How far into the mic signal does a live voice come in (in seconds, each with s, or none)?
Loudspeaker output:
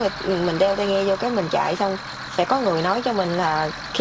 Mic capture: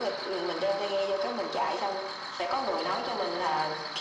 none